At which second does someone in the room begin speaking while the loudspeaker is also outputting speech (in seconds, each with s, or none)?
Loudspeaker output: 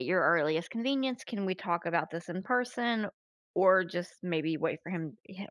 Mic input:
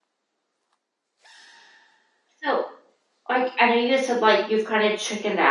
2.4 s